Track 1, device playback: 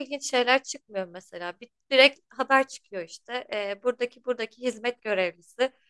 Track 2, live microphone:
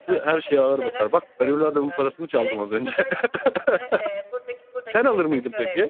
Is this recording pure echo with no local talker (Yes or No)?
No